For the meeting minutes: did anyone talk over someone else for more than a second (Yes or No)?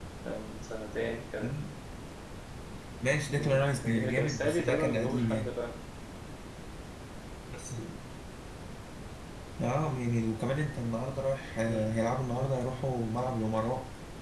Yes